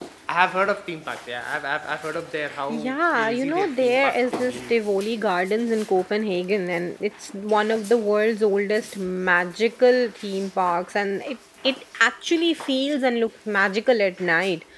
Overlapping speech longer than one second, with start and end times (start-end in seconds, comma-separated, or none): 2.7-4.8